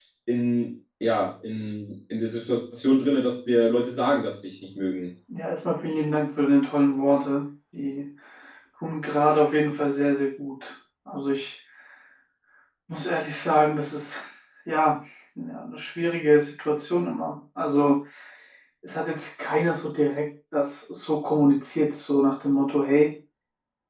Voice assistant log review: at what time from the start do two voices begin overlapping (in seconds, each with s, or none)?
none